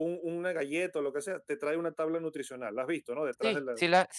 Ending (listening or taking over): taking over